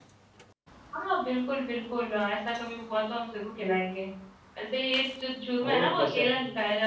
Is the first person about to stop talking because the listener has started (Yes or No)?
No